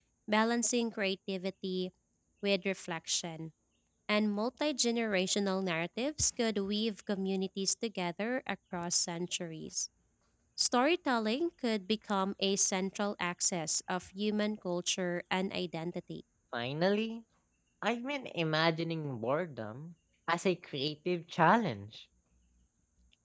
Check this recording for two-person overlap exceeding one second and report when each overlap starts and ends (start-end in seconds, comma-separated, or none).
none